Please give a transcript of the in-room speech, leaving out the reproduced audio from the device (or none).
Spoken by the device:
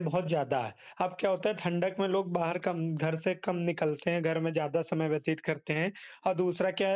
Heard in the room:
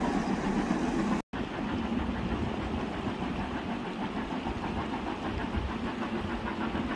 none